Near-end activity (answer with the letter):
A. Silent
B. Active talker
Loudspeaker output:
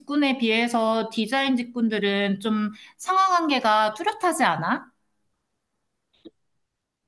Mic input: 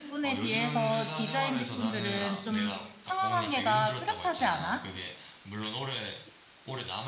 B